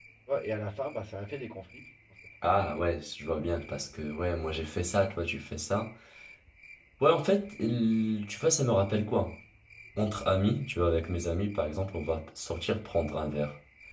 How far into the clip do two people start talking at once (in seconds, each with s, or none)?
none